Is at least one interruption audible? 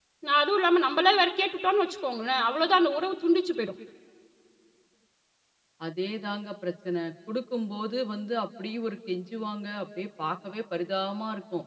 No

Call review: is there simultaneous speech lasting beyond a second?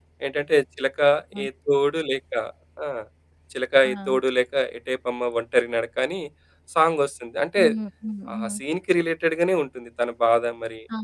No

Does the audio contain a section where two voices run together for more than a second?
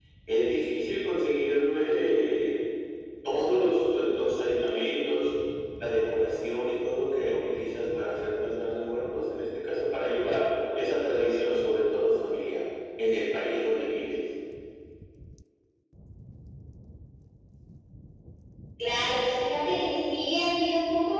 No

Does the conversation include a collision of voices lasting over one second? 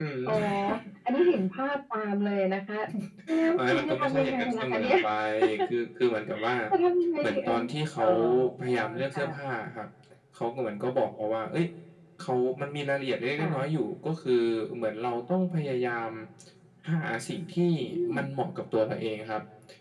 Yes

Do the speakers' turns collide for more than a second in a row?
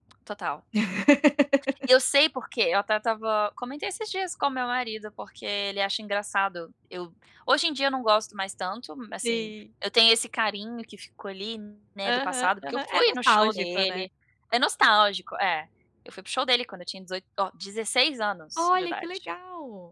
Yes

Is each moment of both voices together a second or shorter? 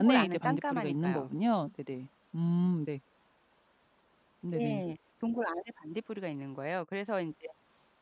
No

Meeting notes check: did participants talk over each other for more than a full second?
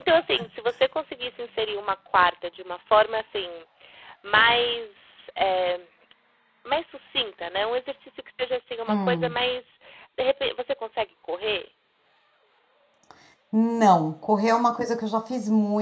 No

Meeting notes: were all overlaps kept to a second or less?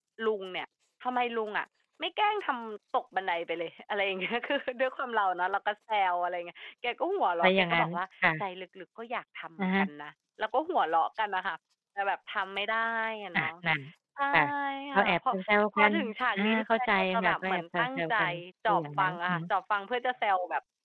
No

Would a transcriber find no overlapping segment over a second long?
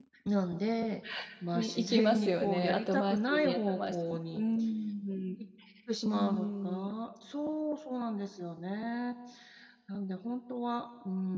No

